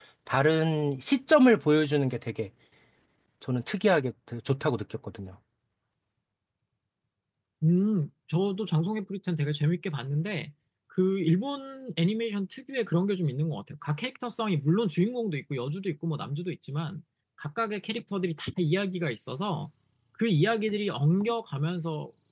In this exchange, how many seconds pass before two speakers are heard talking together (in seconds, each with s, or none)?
none